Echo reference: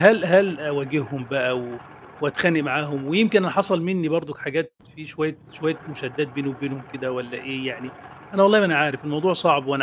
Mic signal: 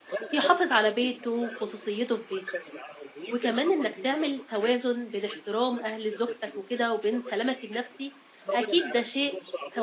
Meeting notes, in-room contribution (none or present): present